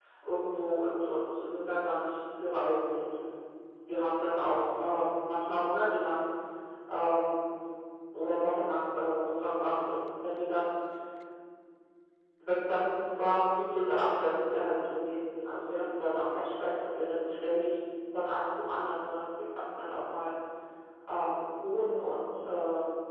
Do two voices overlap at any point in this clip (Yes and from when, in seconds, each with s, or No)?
No